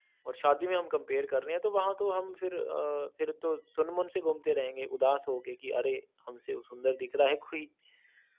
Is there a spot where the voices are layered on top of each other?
No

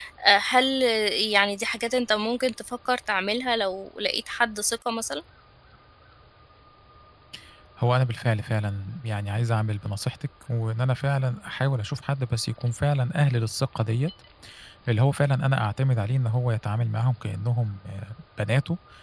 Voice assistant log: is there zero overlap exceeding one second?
Yes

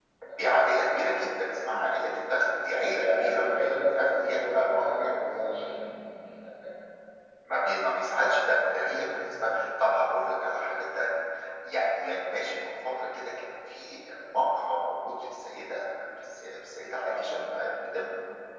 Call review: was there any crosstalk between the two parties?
Yes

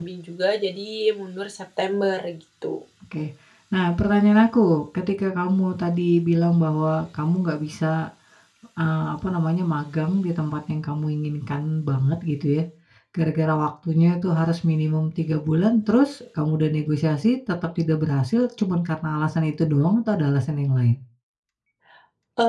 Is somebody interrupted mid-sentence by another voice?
No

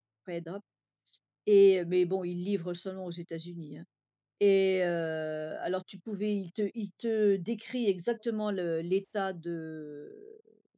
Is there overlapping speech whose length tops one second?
No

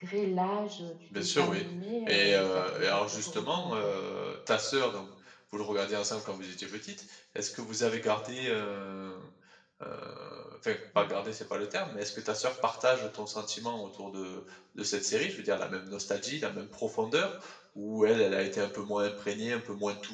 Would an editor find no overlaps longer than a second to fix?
No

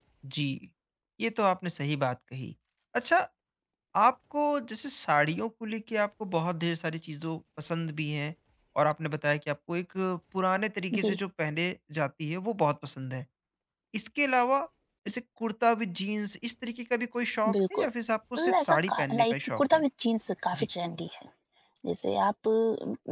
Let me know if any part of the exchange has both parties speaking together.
Yes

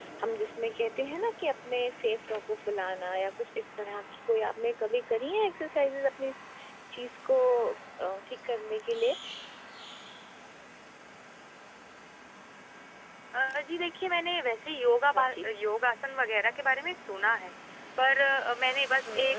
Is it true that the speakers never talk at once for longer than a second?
Yes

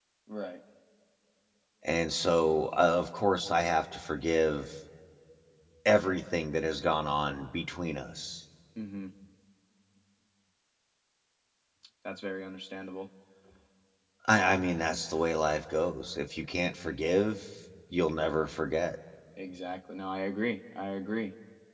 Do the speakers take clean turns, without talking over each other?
Yes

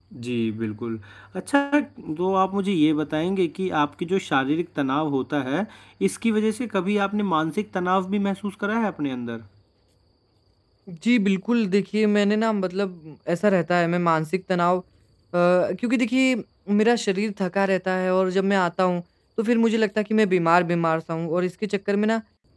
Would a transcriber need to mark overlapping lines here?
No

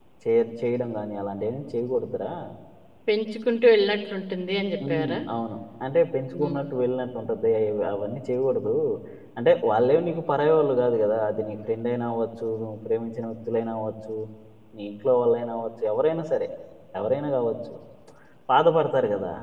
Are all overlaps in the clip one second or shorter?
Yes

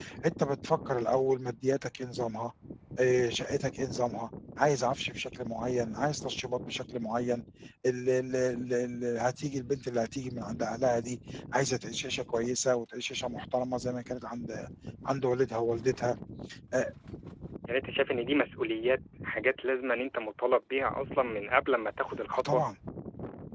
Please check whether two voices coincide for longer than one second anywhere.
No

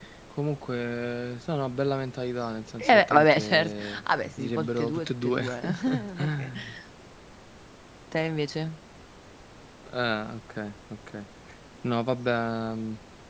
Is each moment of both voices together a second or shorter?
No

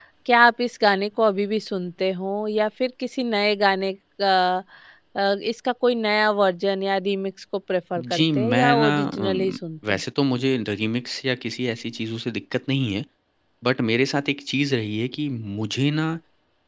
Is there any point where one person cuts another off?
Yes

